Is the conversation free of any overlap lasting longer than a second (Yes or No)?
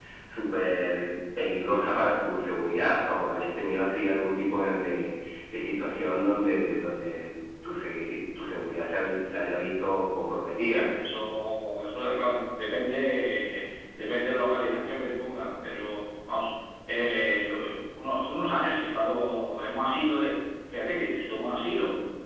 Yes